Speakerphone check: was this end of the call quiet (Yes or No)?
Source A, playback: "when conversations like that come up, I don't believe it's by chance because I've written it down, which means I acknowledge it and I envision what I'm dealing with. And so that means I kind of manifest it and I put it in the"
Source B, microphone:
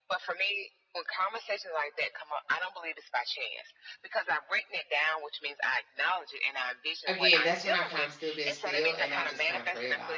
No